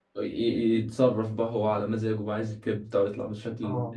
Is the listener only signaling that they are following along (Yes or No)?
No